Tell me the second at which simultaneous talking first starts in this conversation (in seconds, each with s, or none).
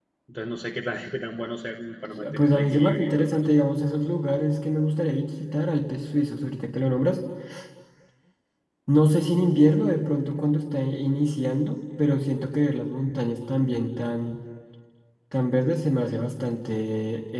2.2 s